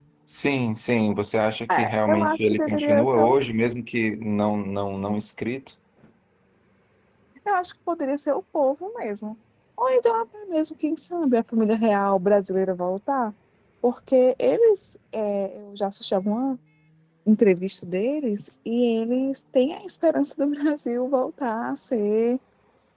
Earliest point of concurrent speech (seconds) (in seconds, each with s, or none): 1.7 s